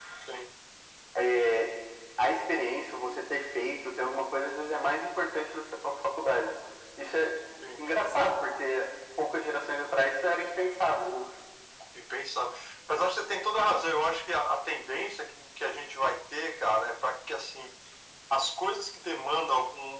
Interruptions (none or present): none